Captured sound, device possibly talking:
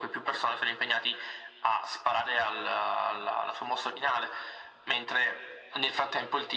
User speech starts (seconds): none

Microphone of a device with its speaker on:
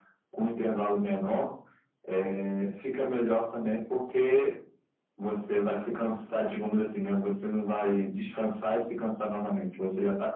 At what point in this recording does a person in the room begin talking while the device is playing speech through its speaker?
none

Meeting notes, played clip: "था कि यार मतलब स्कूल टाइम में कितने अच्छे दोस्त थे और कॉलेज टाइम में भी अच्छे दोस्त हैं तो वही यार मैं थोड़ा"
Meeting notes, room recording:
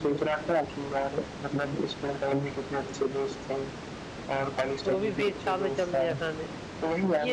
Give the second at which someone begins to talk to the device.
5 s

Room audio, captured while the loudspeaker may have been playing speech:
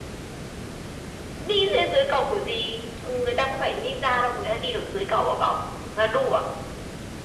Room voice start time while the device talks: none

